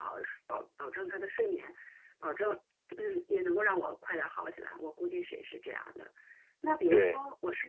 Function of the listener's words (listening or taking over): listening